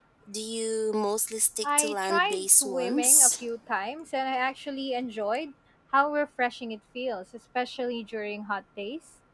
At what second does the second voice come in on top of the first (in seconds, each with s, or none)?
1.6 s